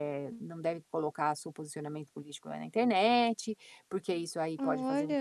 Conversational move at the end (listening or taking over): listening